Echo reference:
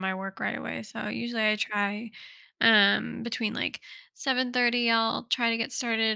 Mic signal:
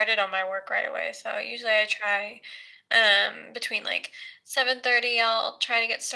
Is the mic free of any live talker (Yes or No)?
Yes